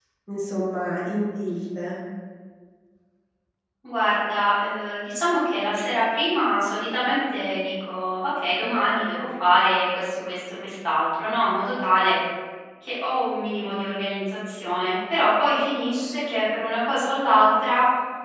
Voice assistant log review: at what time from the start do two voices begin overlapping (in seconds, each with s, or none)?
none